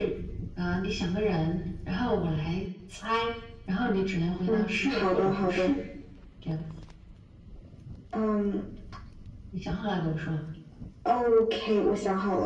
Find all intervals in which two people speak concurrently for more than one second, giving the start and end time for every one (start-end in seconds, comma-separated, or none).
4.5-5.7